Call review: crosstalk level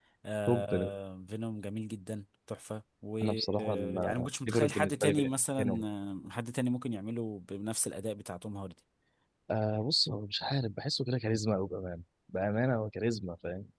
present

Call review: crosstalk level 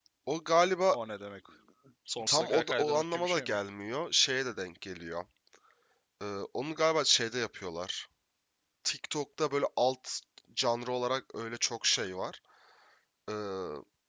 present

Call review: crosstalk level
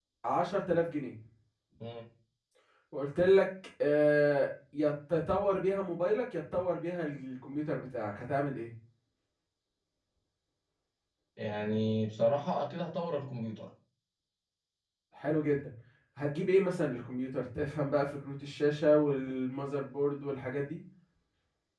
none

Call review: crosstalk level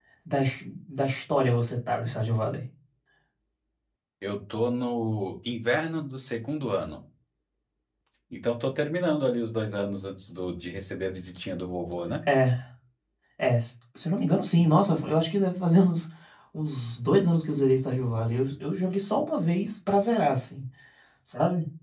none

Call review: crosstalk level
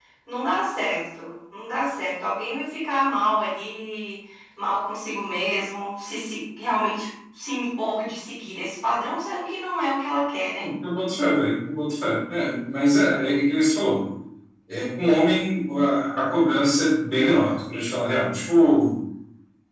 none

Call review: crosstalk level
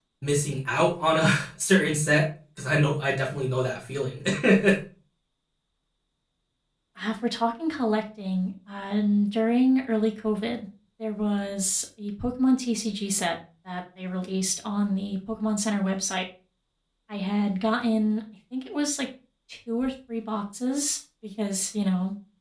none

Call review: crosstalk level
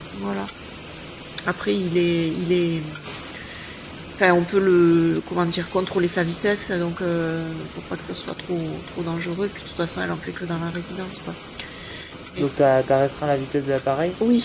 none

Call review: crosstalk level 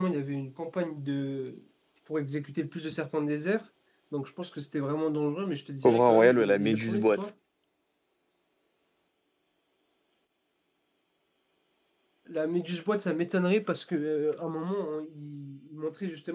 present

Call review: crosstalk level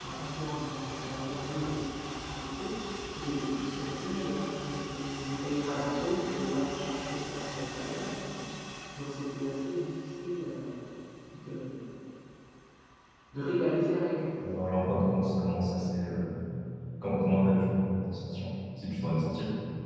none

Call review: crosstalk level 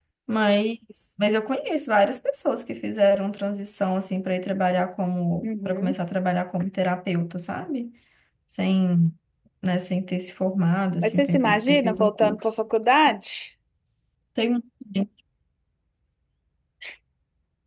present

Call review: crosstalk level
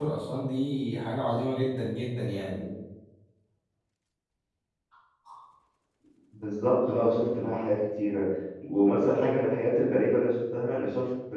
none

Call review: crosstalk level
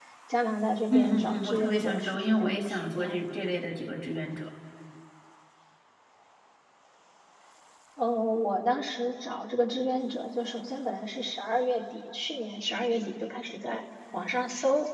present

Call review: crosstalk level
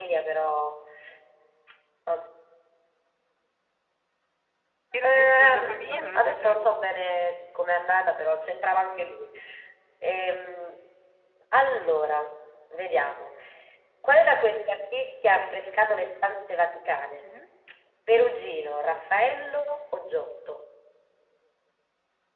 present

